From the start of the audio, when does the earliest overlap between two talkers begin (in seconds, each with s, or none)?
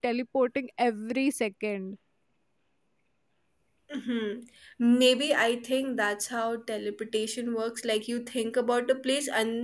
none